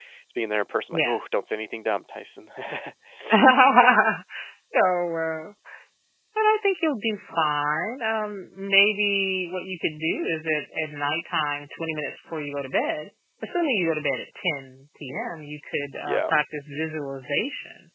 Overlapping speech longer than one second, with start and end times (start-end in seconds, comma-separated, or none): none